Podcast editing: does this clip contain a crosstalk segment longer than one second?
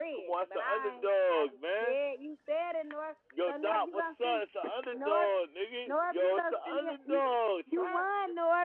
Yes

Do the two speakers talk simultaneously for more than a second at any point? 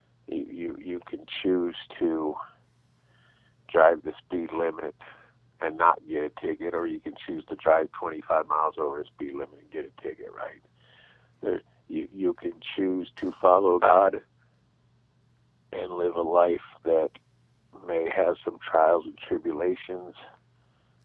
No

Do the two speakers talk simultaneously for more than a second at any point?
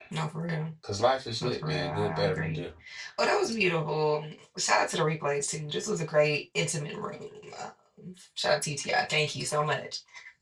Yes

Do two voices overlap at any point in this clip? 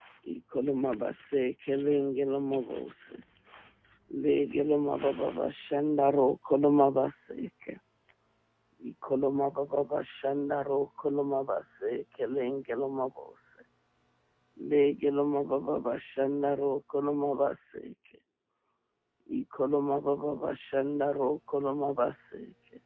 No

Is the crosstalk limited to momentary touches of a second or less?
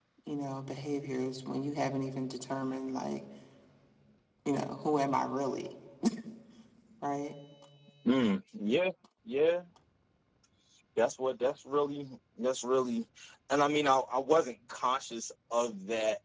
Yes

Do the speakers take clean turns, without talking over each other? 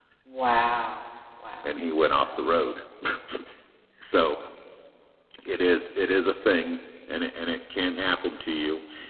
Yes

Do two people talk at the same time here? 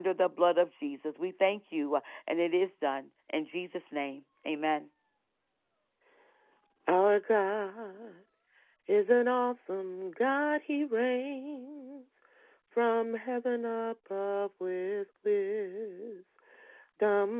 No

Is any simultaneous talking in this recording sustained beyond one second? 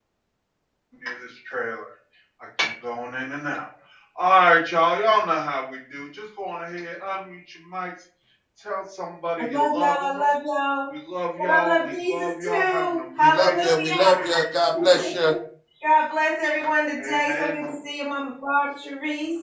Yes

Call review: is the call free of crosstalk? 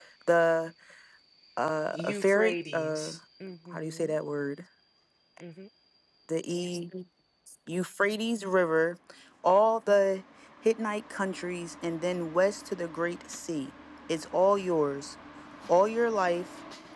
No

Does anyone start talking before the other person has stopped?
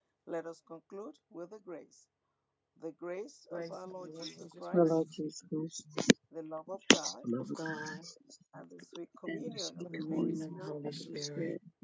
Yes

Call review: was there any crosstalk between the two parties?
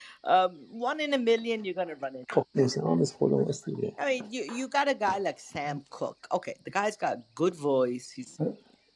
No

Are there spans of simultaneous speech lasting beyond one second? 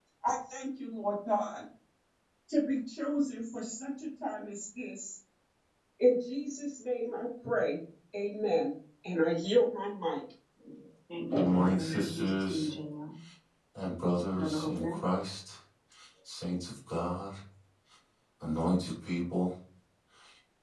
Yes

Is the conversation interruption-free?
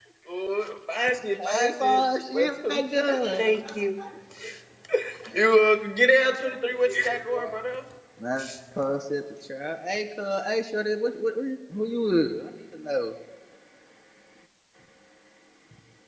No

